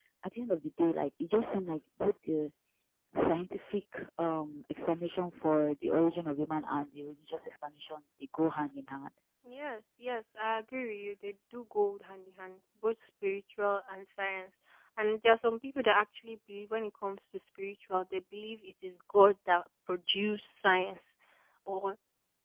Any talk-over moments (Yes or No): No